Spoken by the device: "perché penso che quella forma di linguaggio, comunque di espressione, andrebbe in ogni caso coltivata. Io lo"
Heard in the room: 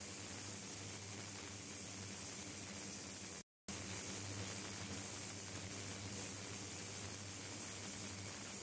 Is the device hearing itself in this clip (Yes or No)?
No